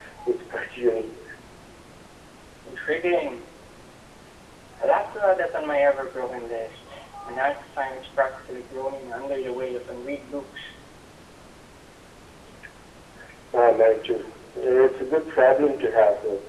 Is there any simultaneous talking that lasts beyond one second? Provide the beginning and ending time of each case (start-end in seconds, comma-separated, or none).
none